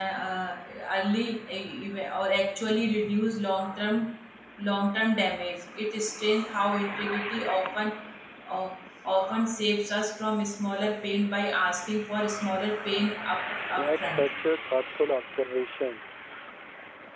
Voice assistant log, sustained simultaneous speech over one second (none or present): none